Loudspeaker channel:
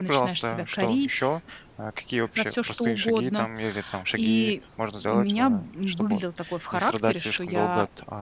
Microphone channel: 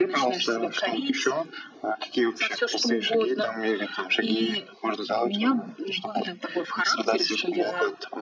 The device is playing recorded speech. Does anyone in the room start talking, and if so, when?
none

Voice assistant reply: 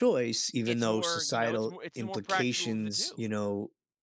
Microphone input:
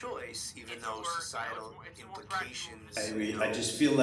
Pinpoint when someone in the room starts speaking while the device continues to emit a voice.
3 s

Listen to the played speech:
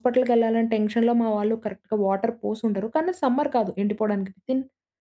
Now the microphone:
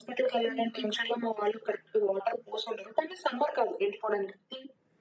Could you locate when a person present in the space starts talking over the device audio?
0 s

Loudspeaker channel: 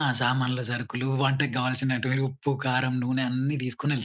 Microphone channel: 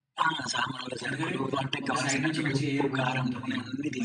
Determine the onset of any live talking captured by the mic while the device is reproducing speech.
1 s

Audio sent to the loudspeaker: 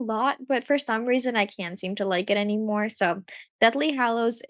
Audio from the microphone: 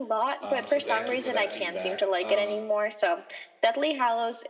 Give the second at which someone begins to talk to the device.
0 s

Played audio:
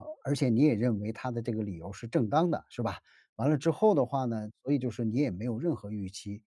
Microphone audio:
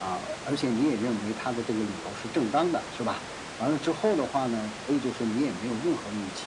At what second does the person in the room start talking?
none

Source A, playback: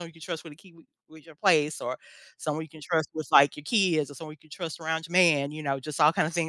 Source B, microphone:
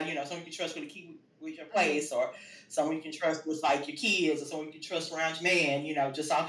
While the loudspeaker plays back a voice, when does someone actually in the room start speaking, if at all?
2 s

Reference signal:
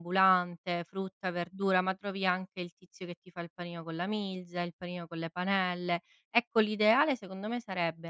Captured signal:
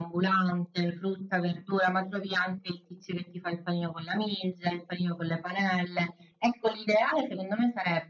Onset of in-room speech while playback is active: none

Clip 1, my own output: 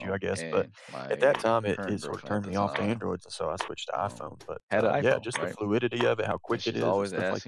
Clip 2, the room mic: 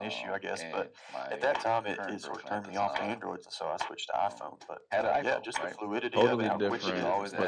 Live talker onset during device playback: 6 s

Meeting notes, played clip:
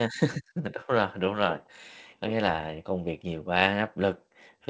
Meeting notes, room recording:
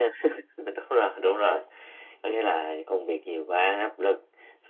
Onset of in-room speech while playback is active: none

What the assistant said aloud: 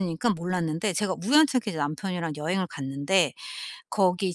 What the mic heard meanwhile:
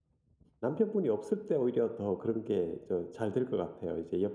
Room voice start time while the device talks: 1 s

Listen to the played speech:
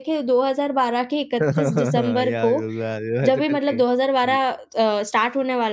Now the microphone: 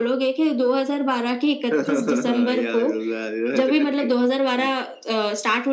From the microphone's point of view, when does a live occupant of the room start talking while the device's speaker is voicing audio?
none

